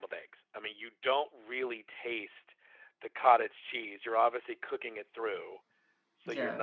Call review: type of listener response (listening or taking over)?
listening